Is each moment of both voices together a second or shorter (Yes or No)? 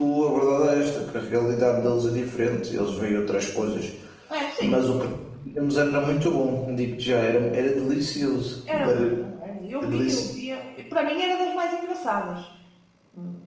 Yes